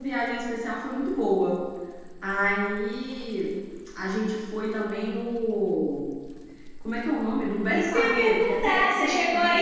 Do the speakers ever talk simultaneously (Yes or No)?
Yes